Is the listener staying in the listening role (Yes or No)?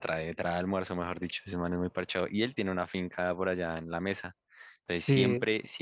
Yes